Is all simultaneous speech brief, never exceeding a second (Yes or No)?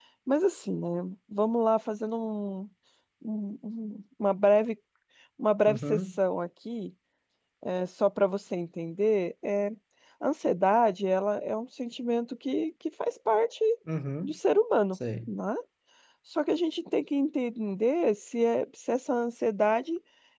Yes